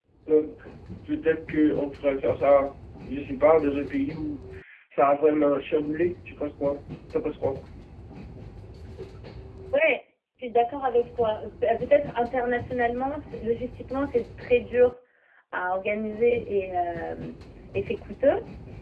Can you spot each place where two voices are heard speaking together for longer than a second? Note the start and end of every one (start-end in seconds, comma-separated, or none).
none